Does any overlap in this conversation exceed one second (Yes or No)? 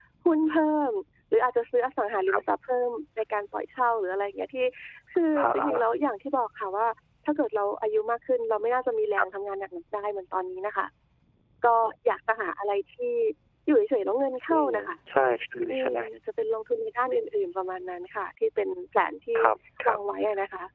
No